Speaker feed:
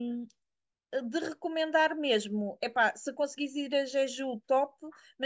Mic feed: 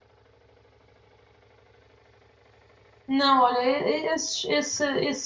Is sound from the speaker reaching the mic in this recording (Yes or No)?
No